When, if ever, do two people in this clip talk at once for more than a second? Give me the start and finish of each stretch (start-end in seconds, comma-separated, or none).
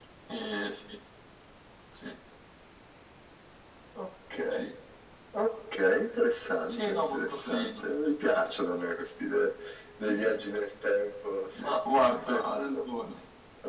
6.6-7.8